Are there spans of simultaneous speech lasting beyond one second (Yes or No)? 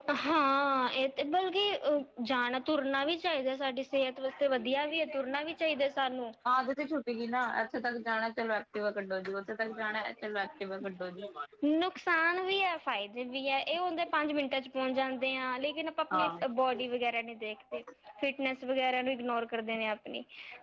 No